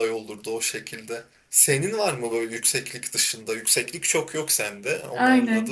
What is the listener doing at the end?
taking over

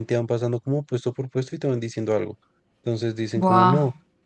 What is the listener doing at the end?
listening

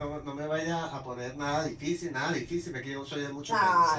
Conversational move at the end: taking over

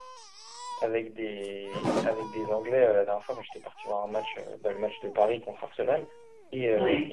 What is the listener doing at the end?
listening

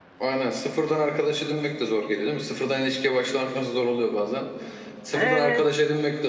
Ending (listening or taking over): listening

